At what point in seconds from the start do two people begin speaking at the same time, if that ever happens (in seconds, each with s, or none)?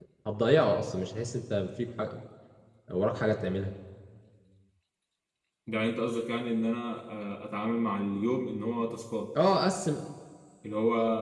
none